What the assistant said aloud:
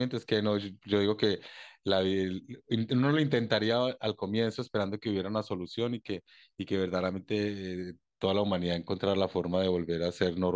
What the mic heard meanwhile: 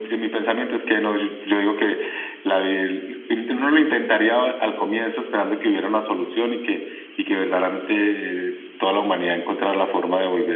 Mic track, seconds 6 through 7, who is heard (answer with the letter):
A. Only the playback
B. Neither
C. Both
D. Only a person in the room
A